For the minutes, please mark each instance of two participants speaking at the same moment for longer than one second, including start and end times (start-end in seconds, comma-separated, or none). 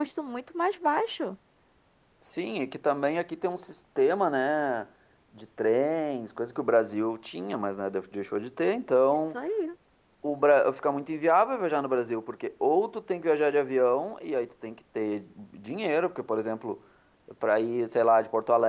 none